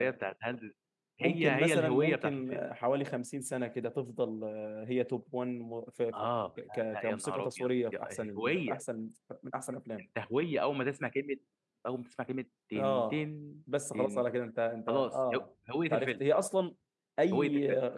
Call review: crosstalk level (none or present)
present